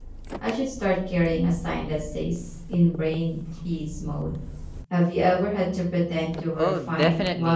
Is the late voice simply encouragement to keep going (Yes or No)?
No